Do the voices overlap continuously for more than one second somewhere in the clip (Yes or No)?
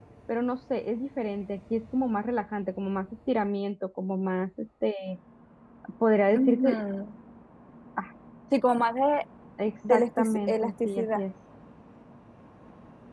Yes